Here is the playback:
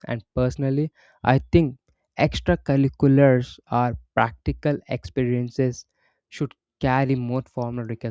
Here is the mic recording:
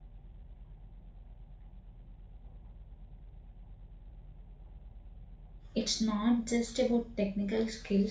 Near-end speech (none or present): present